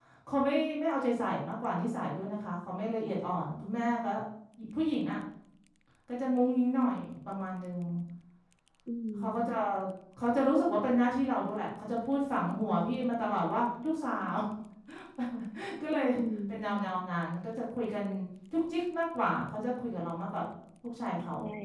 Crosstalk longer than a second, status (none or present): none